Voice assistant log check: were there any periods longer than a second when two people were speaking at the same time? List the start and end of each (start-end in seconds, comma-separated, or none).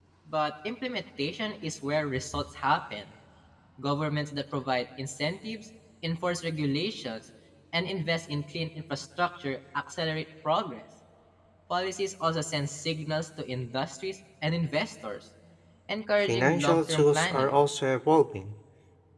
16.2-17.6